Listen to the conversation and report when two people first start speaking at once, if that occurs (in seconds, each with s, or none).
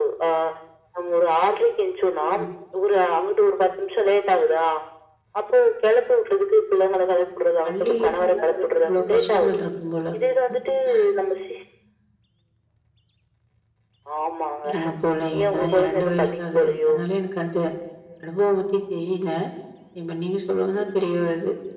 7.6 s